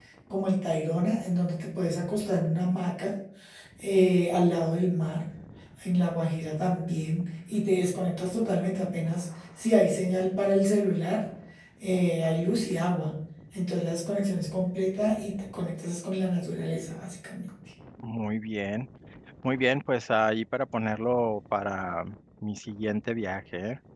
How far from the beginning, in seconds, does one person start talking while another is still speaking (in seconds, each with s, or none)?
none